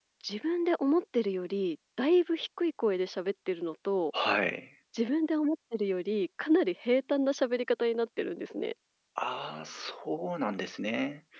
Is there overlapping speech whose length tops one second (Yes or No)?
No